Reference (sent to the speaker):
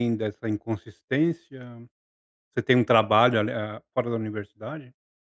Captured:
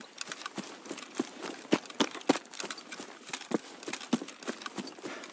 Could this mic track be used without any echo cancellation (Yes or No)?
Yes